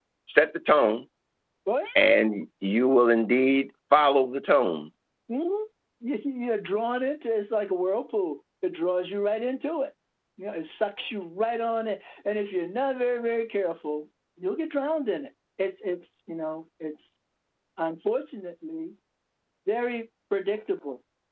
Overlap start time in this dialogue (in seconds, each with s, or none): none